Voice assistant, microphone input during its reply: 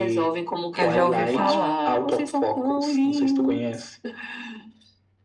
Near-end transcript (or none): eu já ouvi falar.